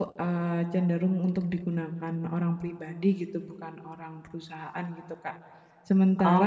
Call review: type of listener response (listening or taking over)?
listening